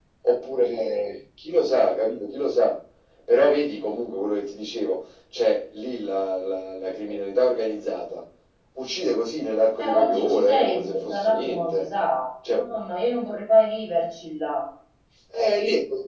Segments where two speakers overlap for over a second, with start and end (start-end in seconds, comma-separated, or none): 9.8-11.9